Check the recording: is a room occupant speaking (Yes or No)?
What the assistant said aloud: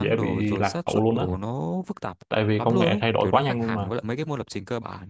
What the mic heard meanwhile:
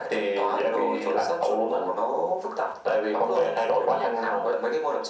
No